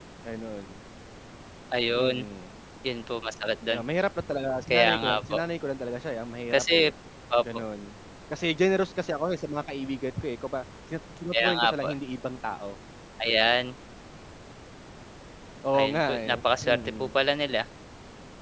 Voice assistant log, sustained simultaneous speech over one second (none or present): present